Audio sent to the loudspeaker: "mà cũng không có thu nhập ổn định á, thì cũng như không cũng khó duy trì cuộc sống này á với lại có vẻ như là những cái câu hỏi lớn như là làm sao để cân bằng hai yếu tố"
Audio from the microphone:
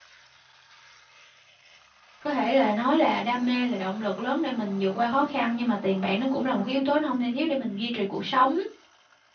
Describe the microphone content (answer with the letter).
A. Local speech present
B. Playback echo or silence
A